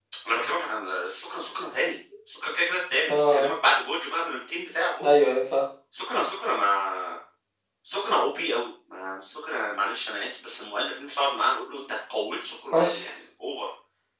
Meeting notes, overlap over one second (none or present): none